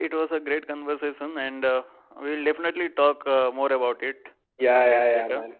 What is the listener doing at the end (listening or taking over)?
taking over